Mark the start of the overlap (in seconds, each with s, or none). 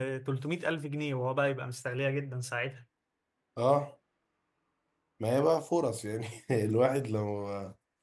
none